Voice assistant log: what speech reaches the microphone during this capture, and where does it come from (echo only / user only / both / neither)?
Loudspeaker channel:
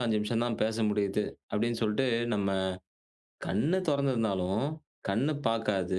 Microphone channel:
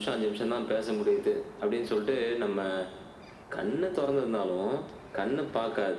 echo only